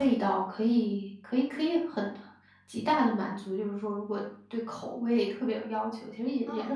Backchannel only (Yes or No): Yes